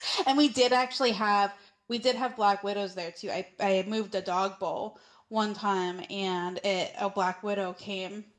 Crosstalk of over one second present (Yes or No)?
No